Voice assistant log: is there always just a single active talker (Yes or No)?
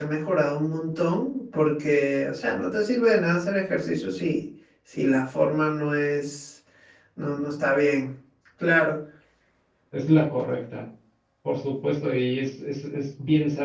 Yes